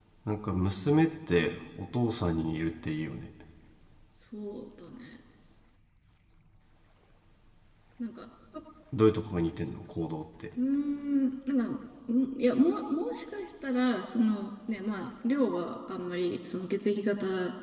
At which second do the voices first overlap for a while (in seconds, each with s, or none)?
none